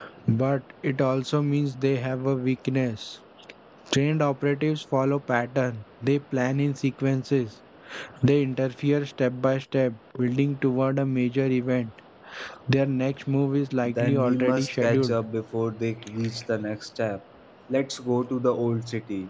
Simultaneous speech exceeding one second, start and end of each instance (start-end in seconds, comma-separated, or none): 13.9-15.2